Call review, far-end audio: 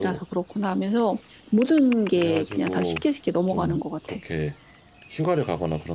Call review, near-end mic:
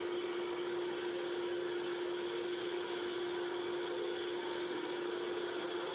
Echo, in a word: none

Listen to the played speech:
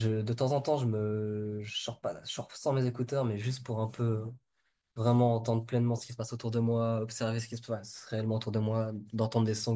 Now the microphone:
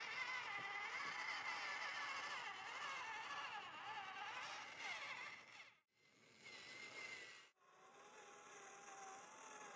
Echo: none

